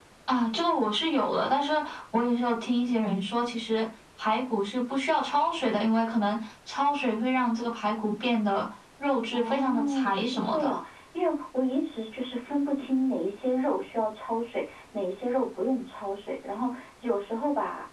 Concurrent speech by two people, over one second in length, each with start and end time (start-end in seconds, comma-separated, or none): 9.3-10.7